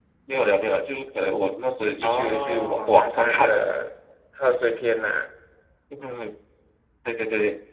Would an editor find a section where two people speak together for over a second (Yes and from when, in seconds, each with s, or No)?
Yes, from 2.0 s